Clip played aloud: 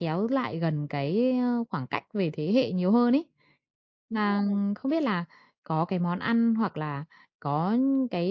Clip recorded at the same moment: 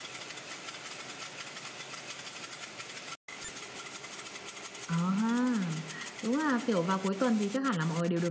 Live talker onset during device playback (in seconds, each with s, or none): 4.8 s